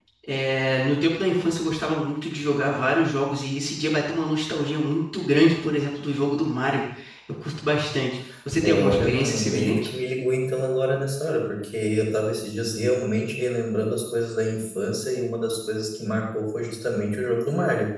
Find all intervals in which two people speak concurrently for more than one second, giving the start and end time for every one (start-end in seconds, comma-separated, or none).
8.6-9.9